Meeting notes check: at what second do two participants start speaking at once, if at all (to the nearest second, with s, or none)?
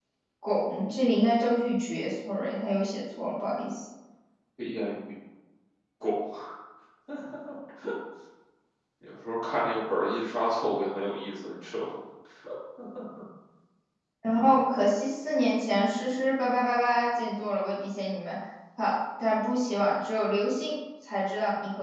none